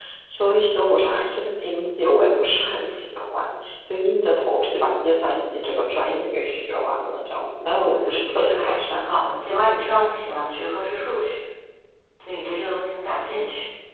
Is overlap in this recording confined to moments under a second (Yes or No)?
No